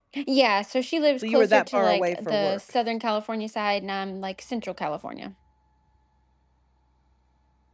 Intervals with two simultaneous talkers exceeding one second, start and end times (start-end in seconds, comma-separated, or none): 1.2-2.6